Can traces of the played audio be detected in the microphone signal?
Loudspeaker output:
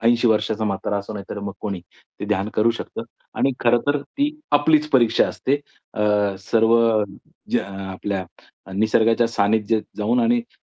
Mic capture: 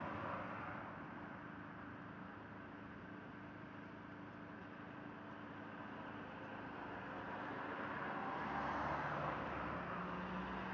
No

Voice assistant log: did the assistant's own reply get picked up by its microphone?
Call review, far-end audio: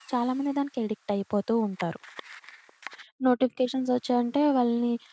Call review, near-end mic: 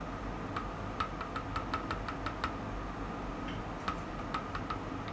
No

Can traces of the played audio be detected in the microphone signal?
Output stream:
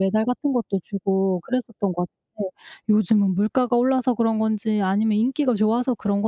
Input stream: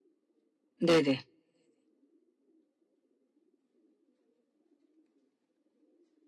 No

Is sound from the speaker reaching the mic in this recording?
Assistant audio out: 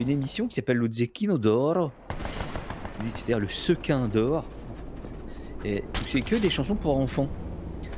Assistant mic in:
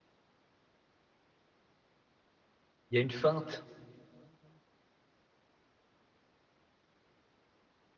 No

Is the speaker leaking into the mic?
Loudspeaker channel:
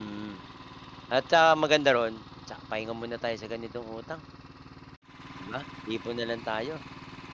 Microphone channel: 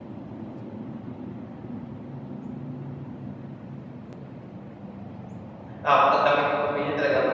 No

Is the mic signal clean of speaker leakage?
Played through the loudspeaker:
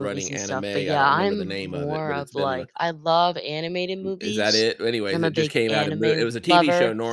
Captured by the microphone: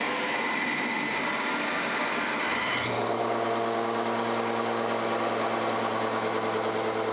Yes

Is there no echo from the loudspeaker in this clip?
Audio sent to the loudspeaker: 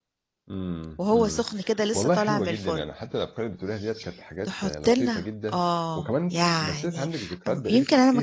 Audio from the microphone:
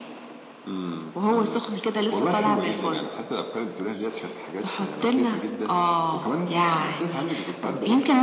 No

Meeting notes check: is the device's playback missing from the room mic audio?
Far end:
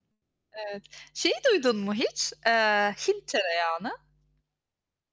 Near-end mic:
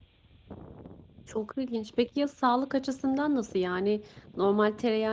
Yes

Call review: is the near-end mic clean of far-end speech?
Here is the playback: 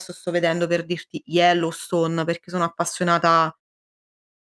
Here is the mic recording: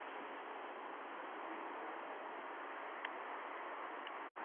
Yes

